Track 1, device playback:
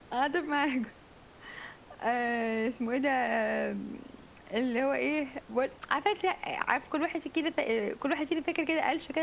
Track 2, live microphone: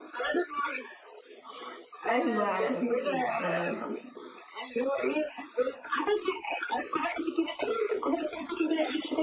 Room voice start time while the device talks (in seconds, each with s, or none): 2.1 s